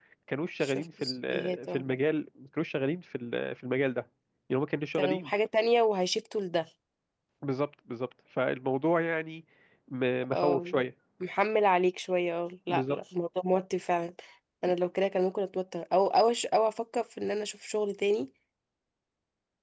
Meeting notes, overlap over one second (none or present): present